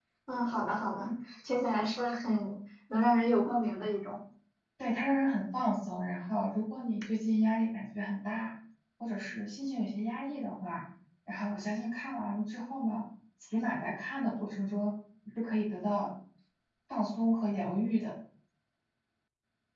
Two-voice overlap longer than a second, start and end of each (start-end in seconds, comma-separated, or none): none